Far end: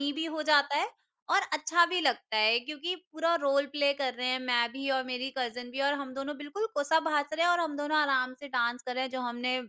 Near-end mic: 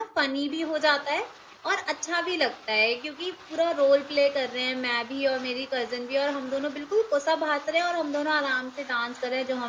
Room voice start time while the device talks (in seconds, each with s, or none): none